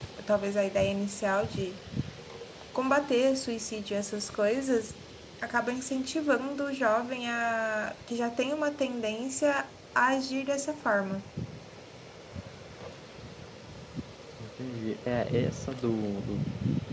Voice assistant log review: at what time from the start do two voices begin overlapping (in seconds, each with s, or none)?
none